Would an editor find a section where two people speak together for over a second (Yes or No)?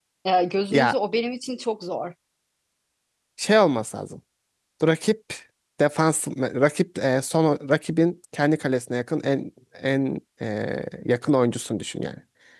No